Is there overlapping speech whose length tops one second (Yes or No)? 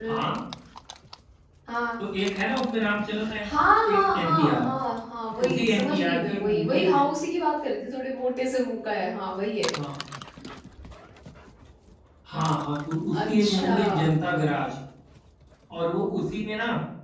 Yes